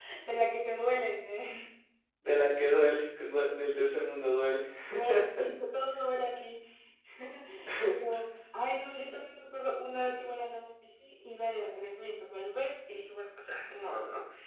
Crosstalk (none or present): none